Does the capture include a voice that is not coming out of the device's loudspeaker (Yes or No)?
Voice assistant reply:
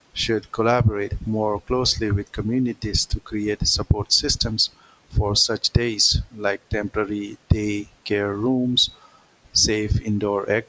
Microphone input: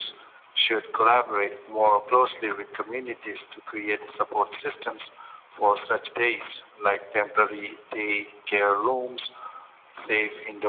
No